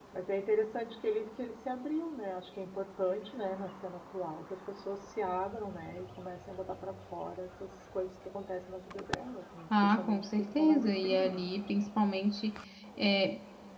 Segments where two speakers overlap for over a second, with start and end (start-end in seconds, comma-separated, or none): 9.8-11.4